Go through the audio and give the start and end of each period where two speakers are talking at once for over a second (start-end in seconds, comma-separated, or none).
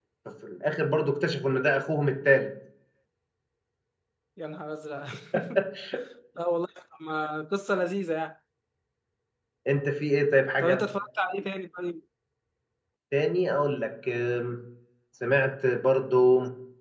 none